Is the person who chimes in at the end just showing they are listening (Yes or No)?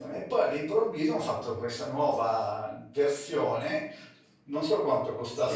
Yes